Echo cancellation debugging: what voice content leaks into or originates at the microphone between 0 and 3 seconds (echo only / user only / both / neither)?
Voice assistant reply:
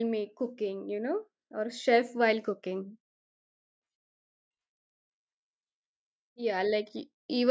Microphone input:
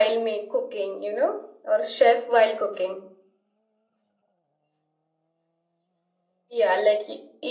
echo only